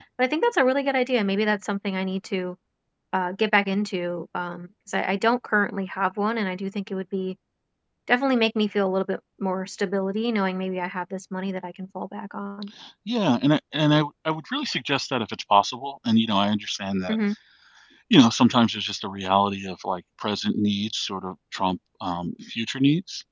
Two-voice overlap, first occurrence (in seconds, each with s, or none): none